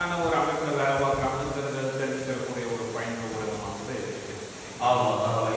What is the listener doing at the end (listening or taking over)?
taking over